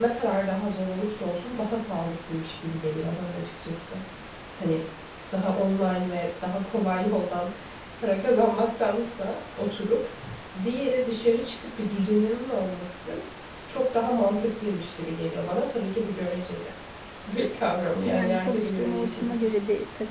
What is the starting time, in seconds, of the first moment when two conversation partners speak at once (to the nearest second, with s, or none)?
18 s